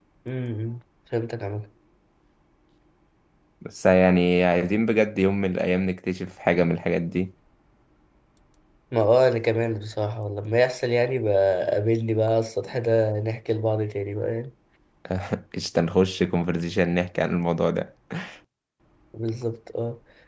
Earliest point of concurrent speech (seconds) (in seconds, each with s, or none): none